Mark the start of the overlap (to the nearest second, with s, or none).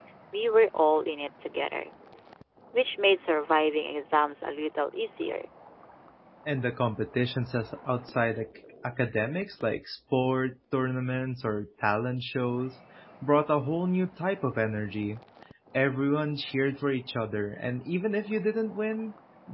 none